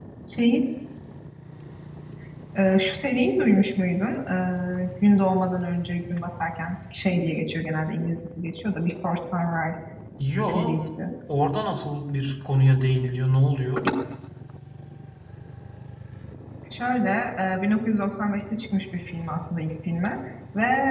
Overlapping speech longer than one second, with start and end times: none

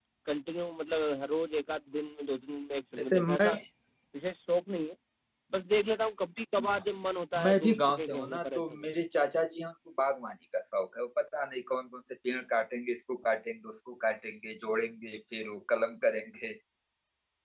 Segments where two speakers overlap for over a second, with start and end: 7.4-8.8

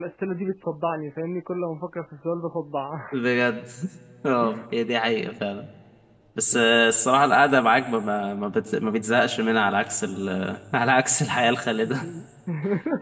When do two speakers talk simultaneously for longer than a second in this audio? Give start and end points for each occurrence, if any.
none

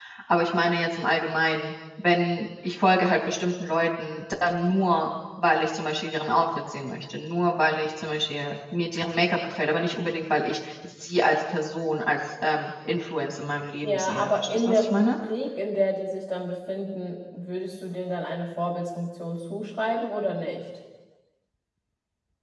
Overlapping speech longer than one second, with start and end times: 13.8-15.1

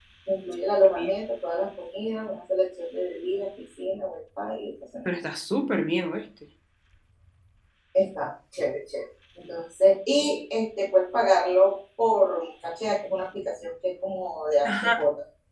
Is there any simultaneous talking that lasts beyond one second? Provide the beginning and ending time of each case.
none

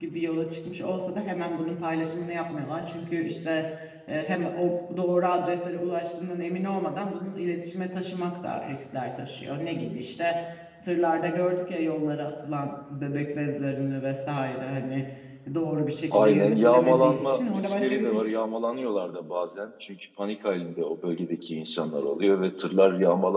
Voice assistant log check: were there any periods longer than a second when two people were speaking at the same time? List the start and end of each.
16.1-18.2

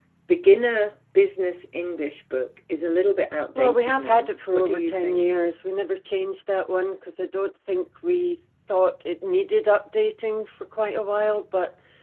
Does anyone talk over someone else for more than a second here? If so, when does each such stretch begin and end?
3.6-5.2

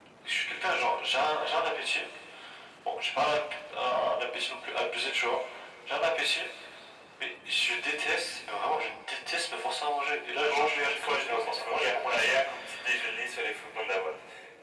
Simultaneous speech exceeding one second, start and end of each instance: 10.4-12.3

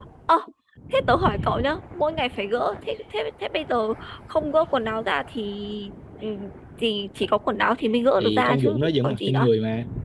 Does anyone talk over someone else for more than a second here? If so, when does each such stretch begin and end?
8.2-9.5

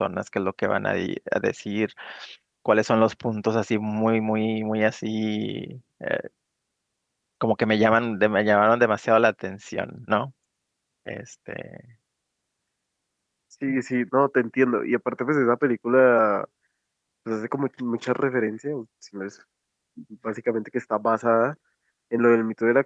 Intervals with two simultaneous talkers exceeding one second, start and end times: none

